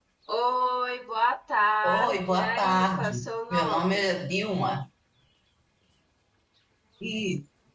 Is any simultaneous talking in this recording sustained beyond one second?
Yes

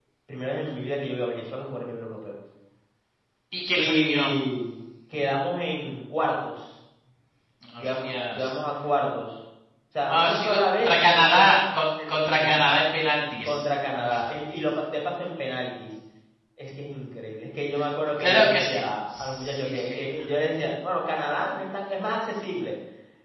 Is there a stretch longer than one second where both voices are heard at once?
Yes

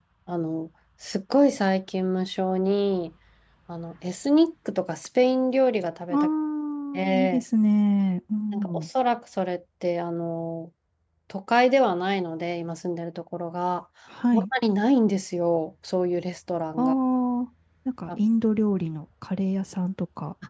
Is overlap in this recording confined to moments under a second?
Yes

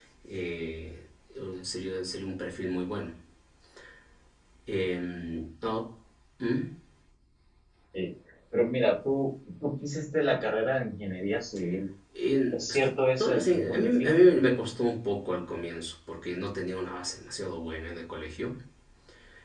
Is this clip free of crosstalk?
No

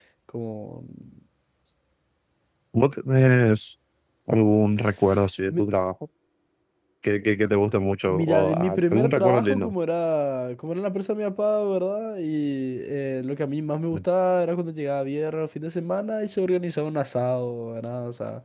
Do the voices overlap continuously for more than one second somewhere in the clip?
Yes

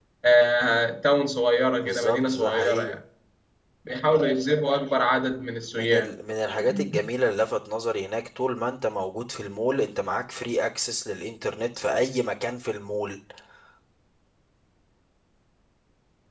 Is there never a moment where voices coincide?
No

